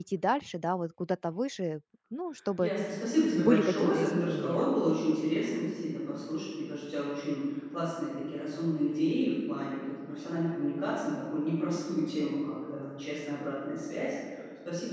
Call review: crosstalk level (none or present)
present